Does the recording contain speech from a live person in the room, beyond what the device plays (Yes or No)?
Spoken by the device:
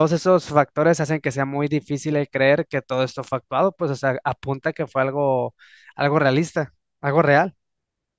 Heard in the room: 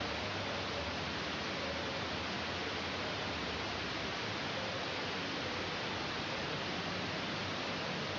No